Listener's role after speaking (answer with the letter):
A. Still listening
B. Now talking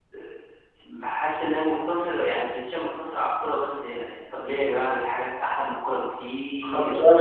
B